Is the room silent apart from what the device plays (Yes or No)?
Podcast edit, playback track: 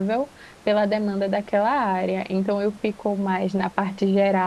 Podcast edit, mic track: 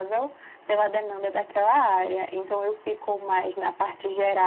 Yes